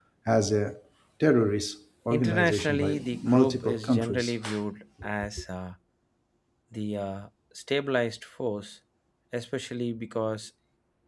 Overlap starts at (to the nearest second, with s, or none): 2 s